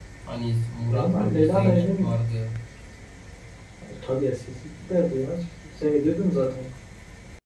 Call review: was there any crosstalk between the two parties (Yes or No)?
Yes